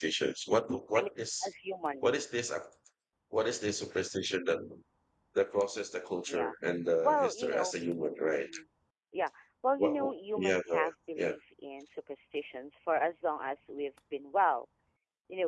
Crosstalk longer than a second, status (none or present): present